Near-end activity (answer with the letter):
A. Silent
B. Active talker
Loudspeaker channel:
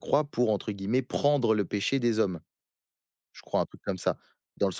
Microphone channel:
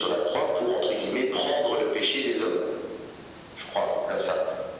A